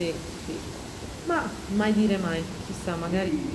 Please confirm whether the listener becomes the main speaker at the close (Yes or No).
Yes